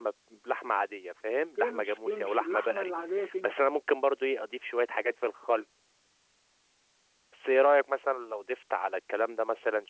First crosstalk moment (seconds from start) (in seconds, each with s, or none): 1.6 s